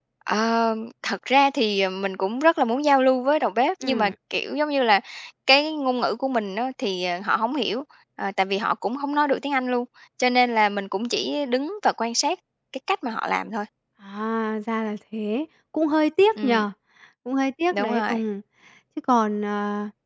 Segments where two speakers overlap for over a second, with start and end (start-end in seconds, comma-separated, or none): none